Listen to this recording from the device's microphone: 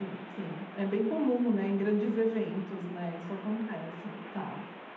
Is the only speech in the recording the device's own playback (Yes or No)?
No